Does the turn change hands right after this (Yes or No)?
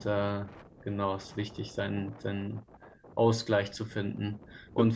No